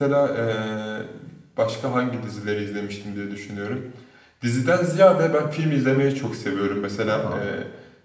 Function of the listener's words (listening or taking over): listening